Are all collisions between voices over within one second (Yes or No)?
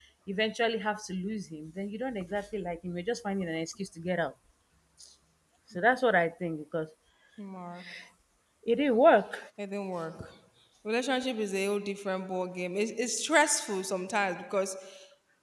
Yes